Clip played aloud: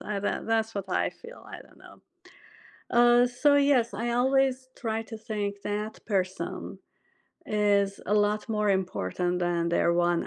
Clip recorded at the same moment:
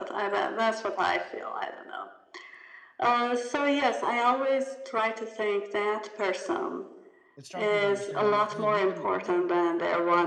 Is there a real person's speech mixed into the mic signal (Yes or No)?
Yes